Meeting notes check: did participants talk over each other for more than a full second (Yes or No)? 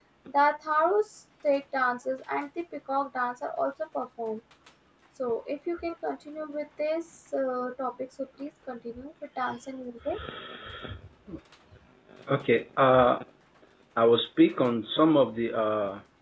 No